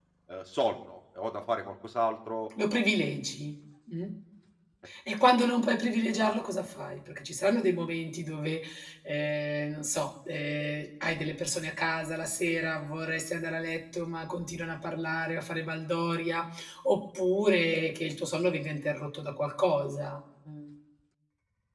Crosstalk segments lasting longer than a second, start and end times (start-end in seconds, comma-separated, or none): none